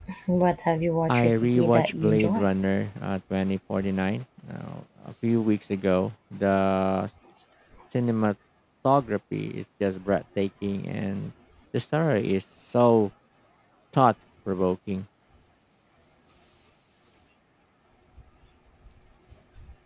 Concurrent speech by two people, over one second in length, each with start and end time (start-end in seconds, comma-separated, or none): 1.1-2.5